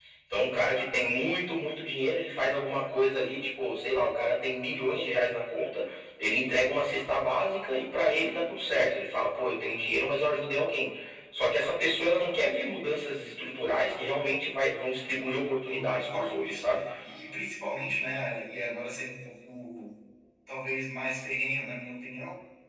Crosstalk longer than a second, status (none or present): present